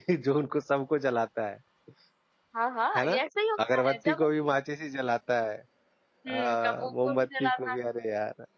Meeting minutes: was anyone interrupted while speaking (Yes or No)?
Yes